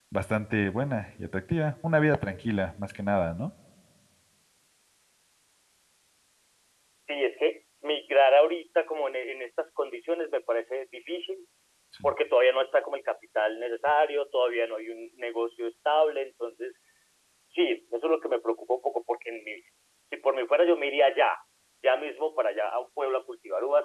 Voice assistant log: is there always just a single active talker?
Yes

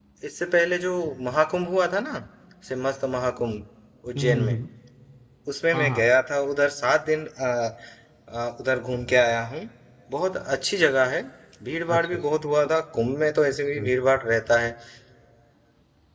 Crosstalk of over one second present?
No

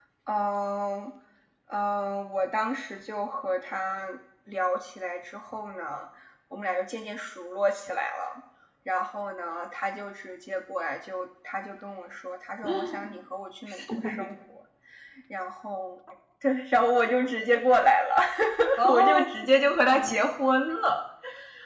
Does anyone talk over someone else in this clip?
Yes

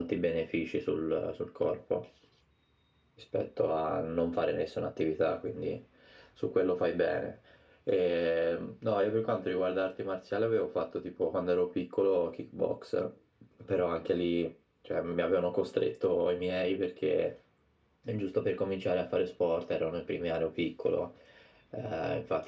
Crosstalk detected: No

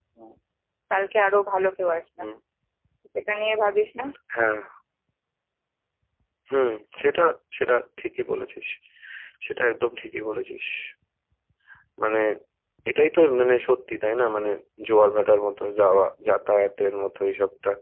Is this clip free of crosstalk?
Yes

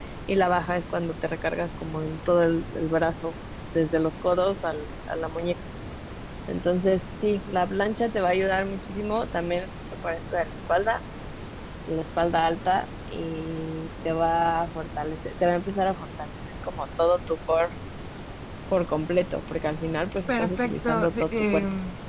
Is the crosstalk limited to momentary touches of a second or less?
No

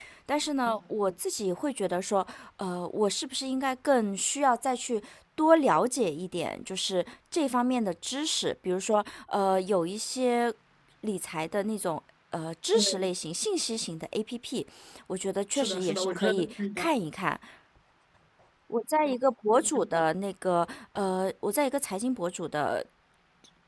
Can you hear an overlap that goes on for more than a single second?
Yes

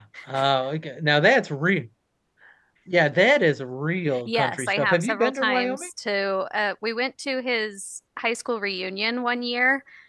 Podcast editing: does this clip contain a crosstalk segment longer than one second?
Yes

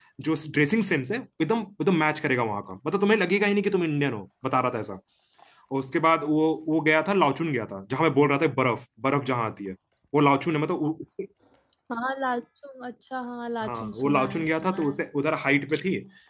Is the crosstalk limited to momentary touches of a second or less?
No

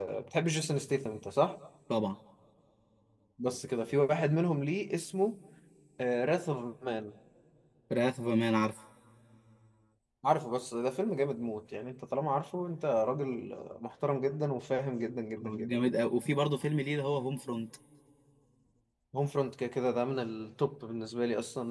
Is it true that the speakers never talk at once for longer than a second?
Yes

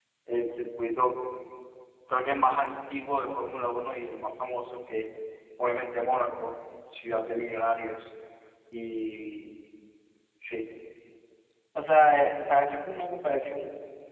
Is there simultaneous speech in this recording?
No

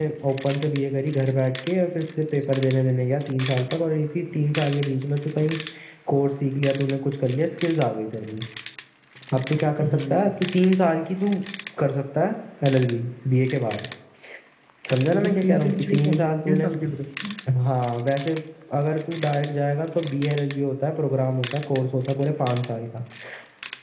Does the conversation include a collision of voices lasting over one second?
Yes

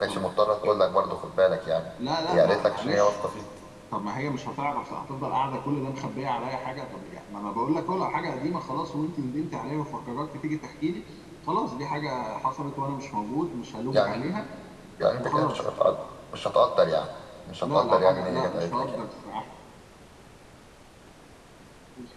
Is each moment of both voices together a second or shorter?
No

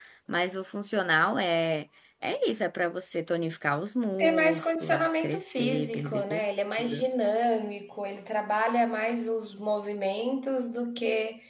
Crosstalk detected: Yes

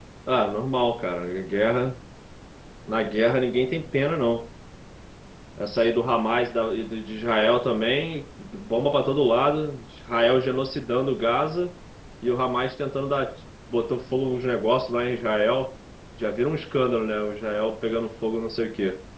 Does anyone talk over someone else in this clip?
No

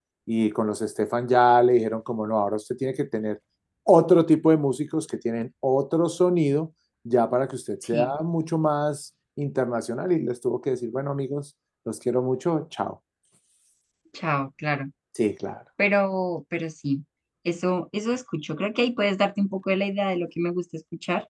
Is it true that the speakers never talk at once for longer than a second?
Yes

